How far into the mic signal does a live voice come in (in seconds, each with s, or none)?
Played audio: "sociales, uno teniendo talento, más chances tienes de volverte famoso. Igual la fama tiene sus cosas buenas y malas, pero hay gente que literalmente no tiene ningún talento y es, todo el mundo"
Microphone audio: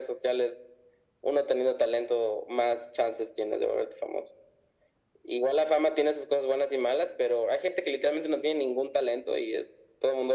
none